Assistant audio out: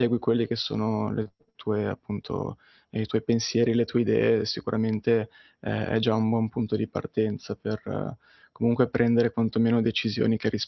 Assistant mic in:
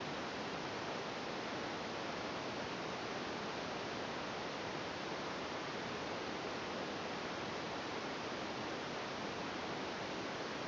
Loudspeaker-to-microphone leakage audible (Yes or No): No